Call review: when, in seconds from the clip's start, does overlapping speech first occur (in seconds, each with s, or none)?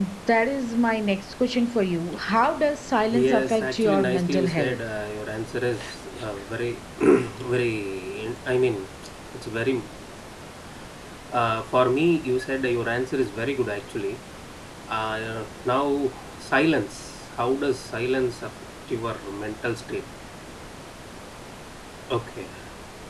3.1 s